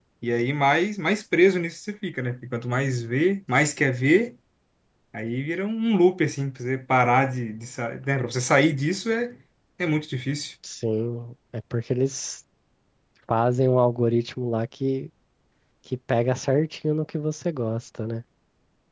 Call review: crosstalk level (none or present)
none